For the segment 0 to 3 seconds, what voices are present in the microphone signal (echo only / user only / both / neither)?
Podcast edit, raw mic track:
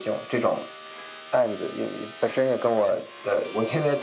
echo only